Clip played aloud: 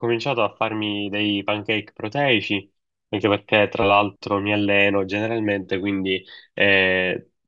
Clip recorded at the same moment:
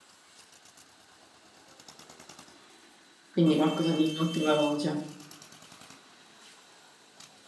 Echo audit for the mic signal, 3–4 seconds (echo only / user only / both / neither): user only